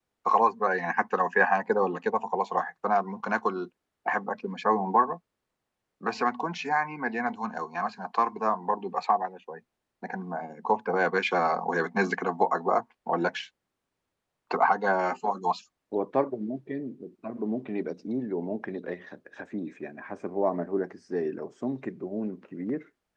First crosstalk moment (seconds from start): none

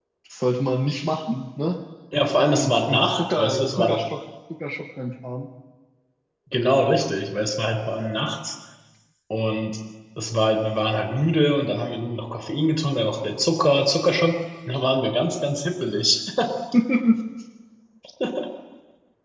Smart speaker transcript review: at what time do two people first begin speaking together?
2.5 s

